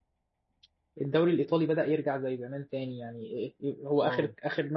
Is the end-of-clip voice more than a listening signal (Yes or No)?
No